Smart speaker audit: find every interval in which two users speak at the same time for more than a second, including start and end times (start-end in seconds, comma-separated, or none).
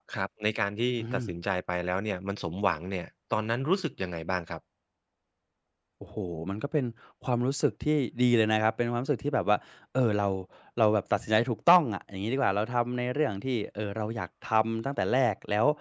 none